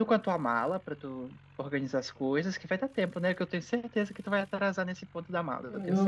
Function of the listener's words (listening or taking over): taking over